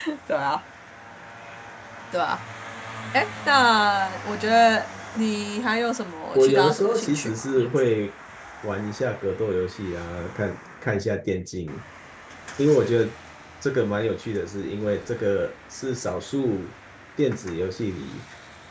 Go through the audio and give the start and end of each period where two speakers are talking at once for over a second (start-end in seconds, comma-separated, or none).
6.4-7.9